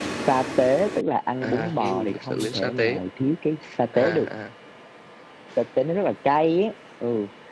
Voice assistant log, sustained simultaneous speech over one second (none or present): present